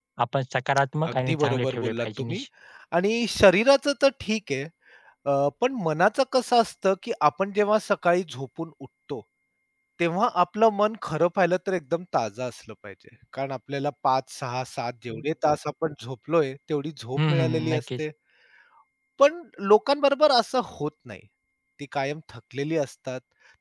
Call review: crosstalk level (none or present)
present